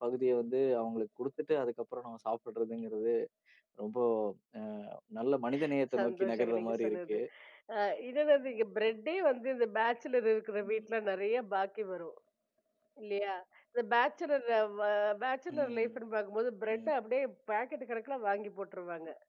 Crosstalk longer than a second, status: present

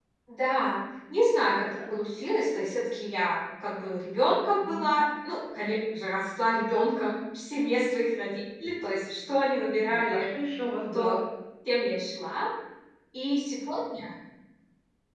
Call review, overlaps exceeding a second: none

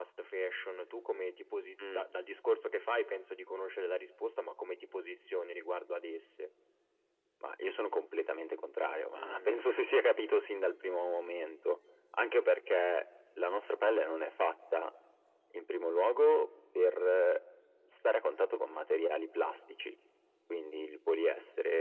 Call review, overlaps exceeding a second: none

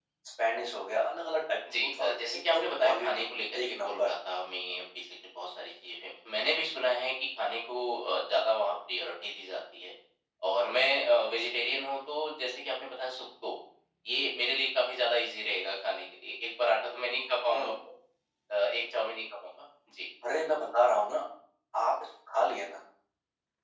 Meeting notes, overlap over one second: present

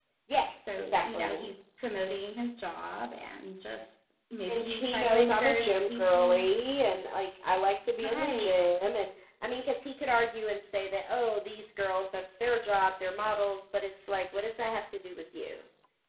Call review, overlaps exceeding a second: present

